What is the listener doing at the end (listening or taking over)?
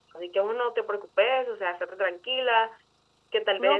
taking over